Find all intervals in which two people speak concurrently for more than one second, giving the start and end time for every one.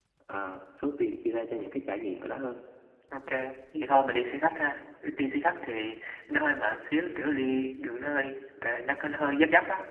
none

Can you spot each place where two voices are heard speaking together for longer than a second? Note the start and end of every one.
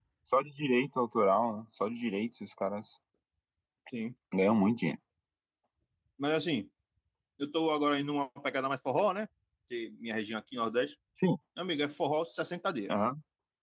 none

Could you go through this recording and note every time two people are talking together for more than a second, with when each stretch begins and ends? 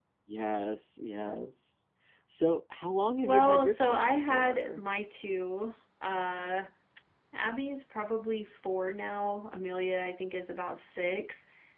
3.2-4.8

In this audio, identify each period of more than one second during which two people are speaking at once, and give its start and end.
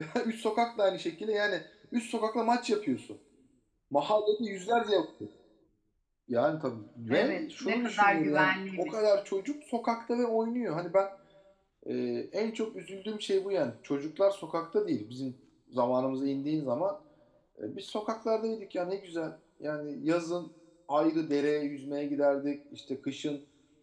7.1-8.9

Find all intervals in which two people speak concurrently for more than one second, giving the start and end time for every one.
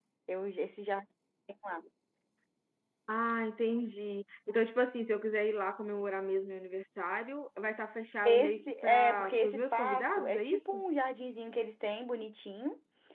8.2-10.8

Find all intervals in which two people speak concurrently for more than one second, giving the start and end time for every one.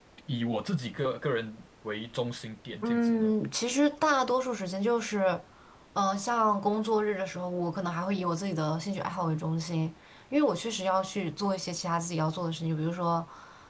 none

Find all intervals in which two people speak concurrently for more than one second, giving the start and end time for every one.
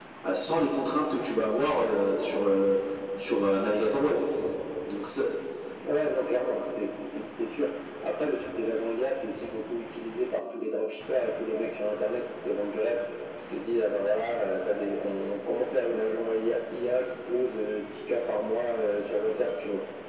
none

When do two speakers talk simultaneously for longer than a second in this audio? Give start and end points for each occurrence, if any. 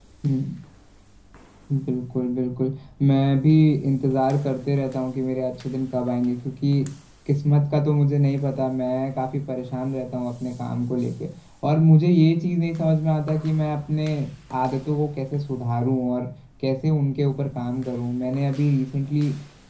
none

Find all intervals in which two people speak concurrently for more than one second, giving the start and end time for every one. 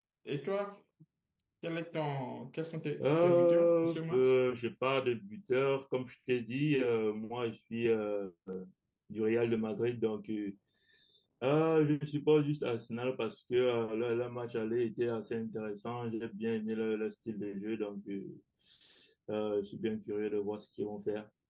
3.0-4.3

